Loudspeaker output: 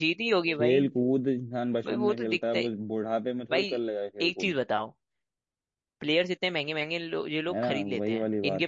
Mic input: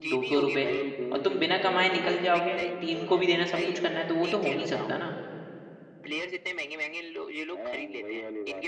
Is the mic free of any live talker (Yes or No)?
No